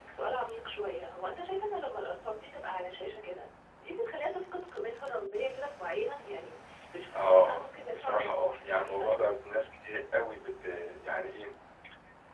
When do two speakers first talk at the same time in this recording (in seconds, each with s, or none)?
7.1 s